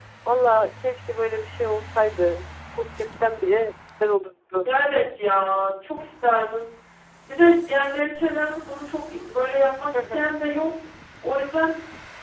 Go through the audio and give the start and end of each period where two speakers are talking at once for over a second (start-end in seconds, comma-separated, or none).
none